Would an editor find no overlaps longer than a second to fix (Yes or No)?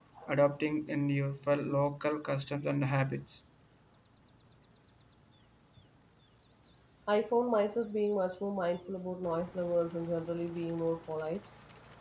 Yes